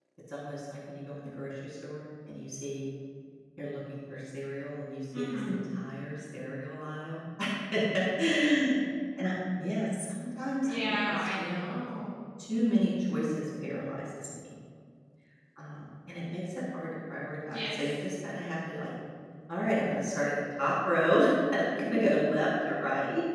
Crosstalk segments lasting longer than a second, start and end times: 10.6-11.8

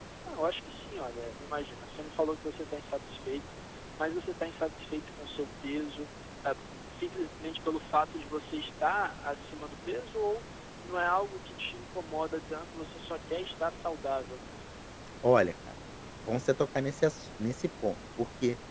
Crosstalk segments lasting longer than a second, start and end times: none

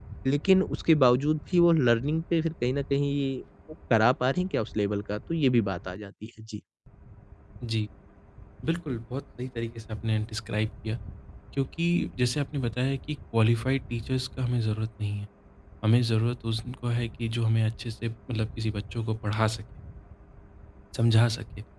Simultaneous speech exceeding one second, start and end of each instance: none

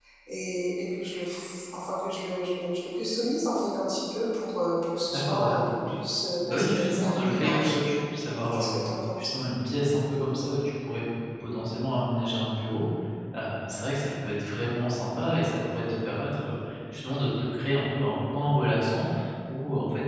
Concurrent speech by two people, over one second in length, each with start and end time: 6.5-7.8

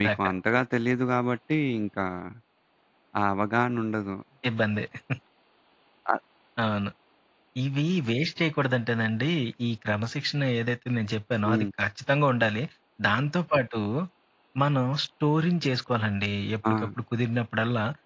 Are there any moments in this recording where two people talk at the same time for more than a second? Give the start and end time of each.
none

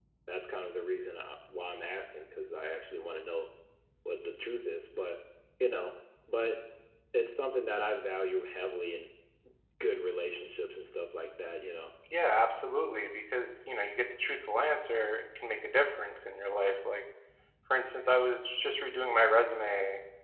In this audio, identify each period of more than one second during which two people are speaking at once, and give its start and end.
none

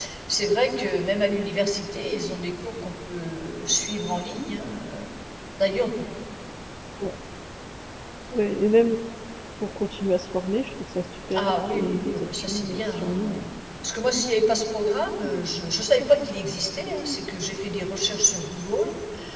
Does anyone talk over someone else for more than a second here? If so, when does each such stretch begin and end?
11.3-13.4

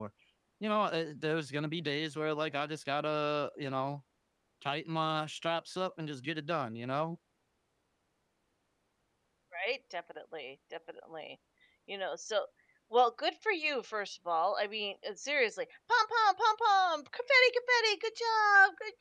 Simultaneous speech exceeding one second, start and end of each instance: none

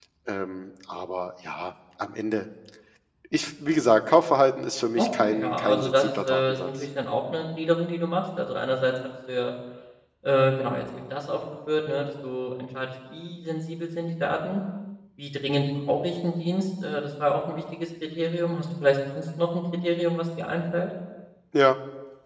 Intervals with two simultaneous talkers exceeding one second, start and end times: 5.0-6.7

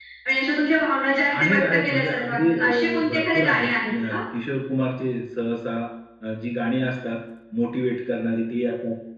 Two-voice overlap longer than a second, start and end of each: 1.4-4.2

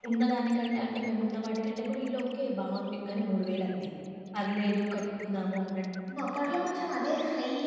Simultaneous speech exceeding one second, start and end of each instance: none

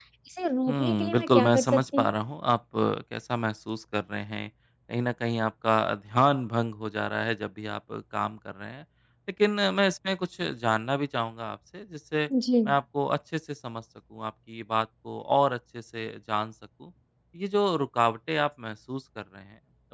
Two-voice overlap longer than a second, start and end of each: 0.7-2.1

